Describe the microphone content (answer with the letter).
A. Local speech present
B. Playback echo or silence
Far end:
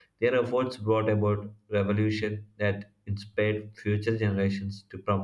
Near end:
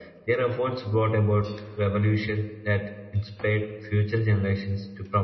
B